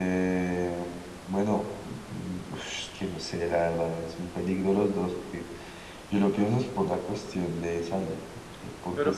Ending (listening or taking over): taking over